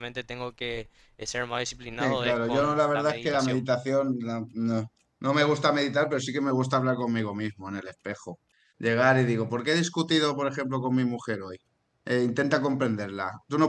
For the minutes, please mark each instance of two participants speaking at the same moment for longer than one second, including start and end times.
2.0-3.6

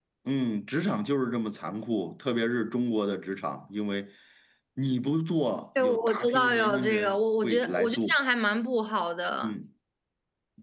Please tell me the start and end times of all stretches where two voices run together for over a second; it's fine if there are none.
5.8-8.0

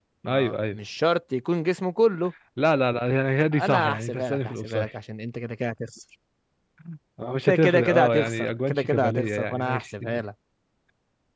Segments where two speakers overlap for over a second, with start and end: 3.6-4.9, 7.5-10.0

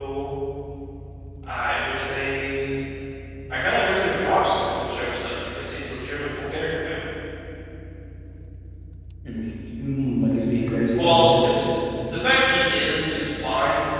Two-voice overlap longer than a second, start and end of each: none

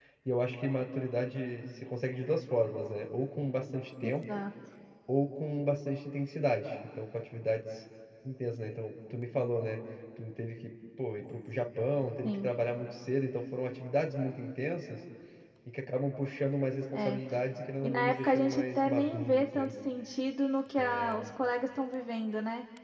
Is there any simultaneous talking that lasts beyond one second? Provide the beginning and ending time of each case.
17.8-19.7

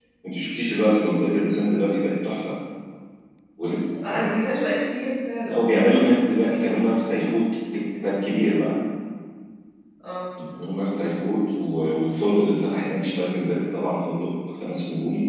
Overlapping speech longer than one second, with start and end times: none

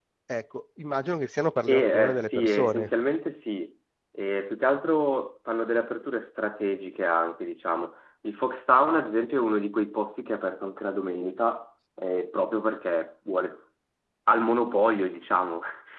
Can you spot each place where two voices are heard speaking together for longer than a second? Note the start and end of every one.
1.7-2.9

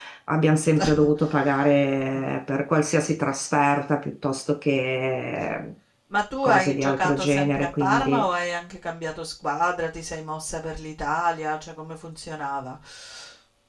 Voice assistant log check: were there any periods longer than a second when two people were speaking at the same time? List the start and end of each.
6.4-8.2

